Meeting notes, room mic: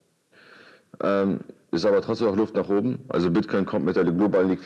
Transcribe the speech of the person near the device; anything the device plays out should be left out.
none

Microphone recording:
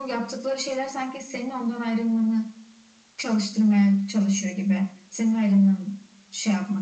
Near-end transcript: none

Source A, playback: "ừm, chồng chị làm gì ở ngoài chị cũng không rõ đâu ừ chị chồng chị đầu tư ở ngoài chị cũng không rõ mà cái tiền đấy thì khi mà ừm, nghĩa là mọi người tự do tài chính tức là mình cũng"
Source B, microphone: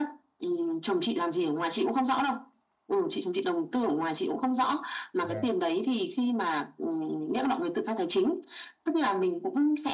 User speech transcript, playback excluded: dạ

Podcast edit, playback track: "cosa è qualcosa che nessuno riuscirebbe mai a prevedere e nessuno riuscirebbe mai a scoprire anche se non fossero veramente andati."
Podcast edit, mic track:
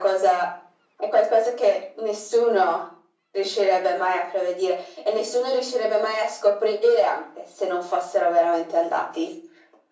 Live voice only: none

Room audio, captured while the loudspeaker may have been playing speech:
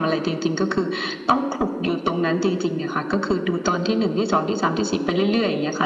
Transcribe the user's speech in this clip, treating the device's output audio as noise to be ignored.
none

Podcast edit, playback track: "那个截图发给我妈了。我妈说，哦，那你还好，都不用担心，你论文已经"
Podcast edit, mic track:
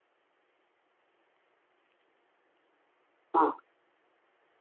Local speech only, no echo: 嗯

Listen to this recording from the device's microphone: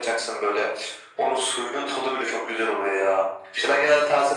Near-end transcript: none

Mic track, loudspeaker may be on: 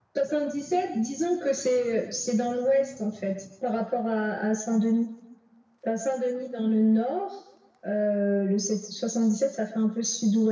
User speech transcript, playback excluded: none

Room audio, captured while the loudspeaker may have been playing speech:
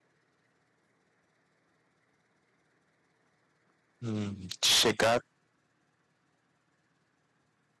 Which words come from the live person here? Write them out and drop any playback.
Hum, De chegar,

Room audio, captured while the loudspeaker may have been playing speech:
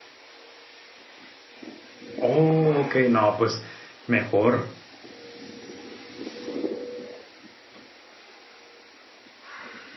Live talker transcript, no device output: Oh, ok, no, pues mejor.

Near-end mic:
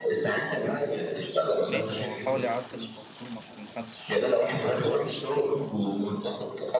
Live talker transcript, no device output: ليه طب ما هو حاول يعدل المنظومة عشان محدش

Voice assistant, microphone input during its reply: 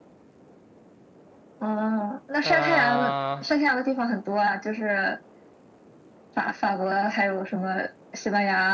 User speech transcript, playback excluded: 呃，

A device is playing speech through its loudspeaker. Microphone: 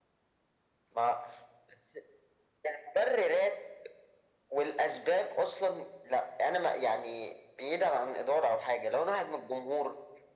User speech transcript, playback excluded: none

